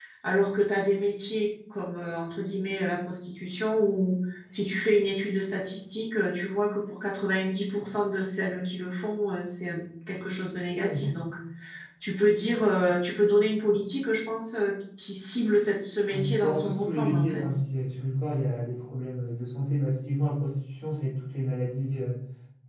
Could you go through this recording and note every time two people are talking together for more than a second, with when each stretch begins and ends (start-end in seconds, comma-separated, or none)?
16.1-17.5